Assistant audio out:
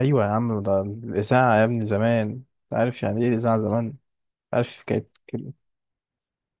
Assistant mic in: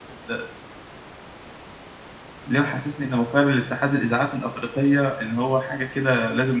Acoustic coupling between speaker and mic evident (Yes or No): No